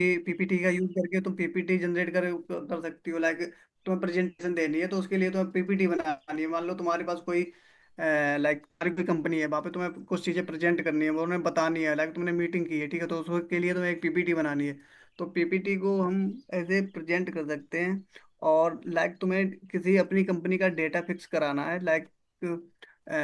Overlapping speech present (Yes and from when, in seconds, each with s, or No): No